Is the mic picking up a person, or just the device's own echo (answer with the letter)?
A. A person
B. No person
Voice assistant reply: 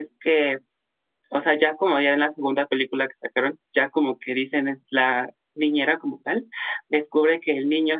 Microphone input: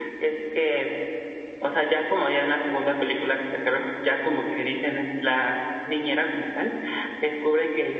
B